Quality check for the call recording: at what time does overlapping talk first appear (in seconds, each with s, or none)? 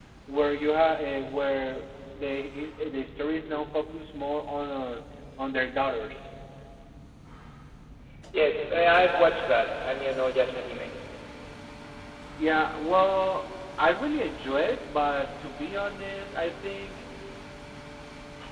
none